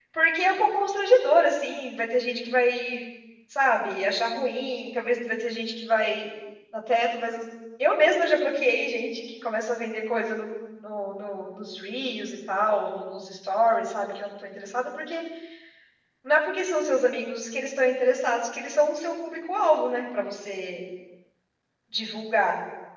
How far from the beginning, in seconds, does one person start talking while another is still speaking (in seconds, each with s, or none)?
none